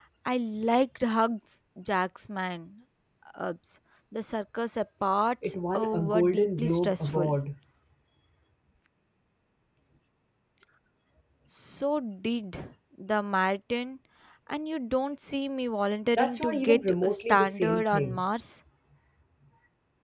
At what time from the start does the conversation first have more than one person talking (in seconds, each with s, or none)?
5.4 s